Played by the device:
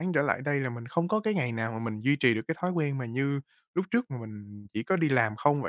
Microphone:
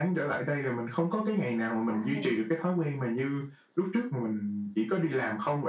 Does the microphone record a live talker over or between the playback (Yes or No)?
Yes